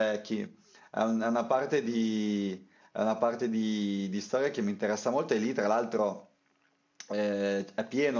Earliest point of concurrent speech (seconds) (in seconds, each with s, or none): none